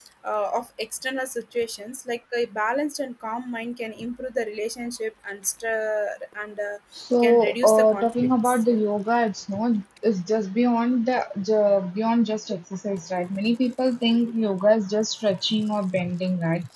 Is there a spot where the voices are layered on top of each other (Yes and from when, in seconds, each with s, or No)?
Yes, from 7.2 s